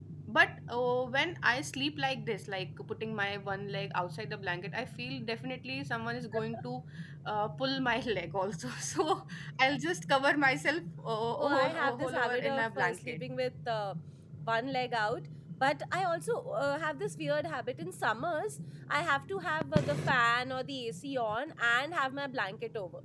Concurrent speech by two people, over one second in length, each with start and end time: 11.3-13.2

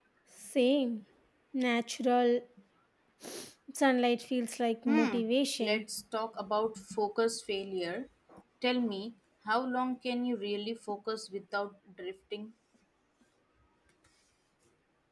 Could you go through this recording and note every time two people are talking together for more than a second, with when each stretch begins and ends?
none

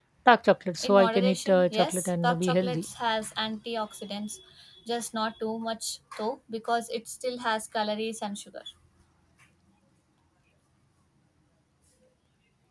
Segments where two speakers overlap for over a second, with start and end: 0.8-2.8

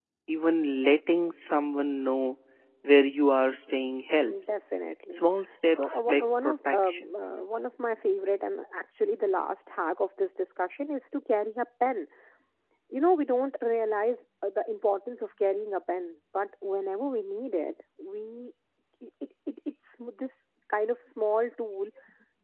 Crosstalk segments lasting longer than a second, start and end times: 5.8-7.1

